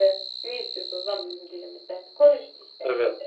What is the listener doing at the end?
taking over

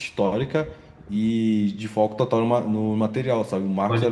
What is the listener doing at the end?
listening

